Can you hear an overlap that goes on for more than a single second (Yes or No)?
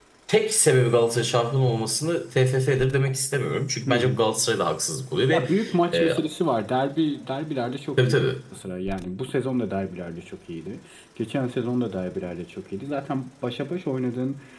No